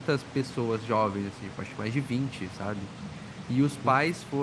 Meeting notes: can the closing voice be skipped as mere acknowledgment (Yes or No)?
Yes